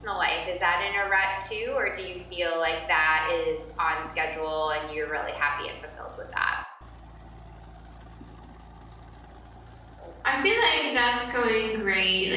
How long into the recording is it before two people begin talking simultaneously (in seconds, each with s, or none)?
none